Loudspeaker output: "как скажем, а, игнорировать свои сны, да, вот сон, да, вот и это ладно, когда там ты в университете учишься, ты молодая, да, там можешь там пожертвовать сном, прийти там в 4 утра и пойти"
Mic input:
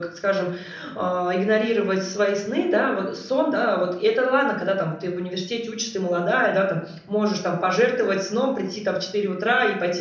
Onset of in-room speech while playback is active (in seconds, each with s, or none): none